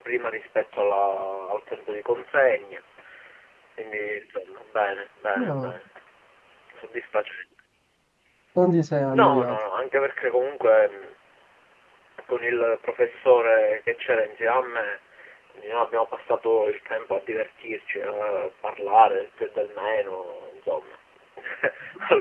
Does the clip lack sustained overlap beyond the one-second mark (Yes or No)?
Yes